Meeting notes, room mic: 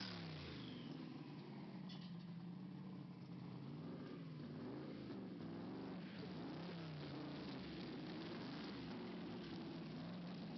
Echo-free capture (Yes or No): Yes